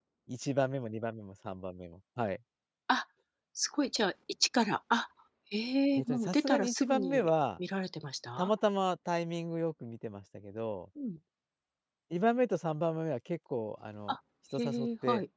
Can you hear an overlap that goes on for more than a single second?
Yes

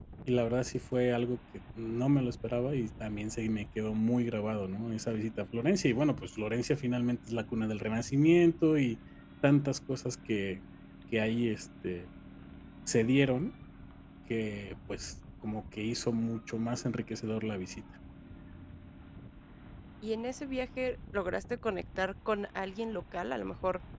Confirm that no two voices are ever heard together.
Yes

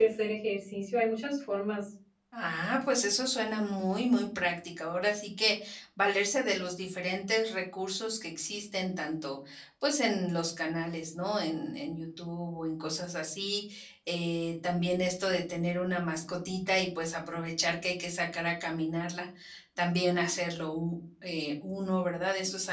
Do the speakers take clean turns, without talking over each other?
Yes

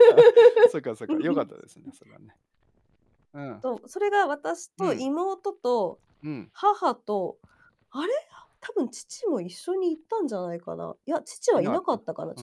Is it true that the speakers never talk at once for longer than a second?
Yes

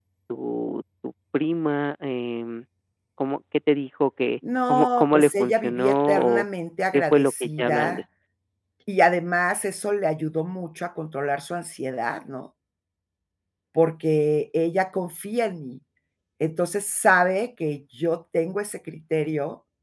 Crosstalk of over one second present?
Yes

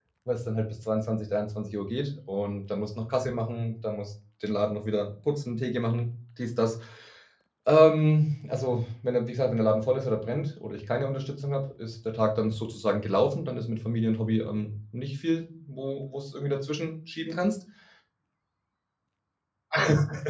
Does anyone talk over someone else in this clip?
No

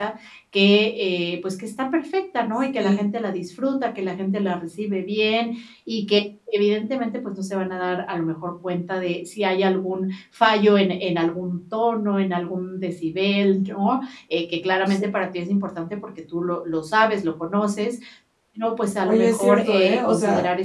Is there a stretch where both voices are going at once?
Yes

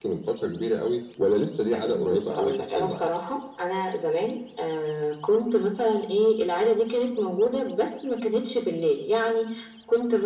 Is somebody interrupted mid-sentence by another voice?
Yes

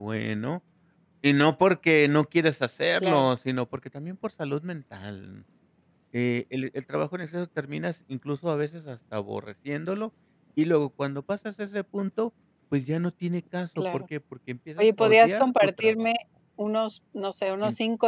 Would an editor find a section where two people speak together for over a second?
Yes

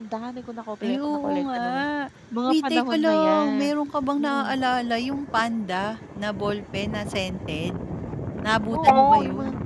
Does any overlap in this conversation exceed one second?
Yes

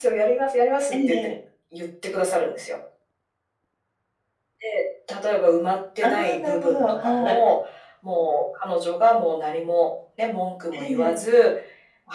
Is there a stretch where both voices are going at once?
Yes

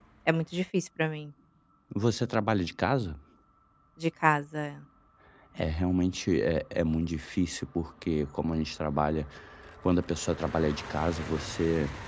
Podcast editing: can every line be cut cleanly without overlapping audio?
Yes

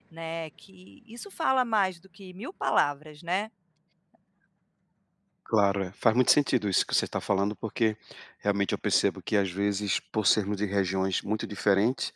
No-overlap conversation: Yes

